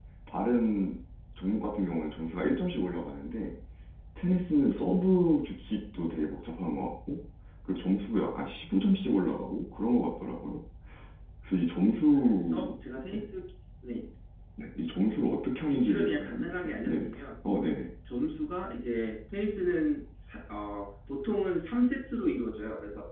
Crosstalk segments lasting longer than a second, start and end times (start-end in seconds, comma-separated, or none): 15.7-17.1